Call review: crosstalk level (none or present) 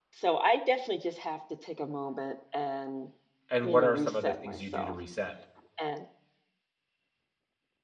present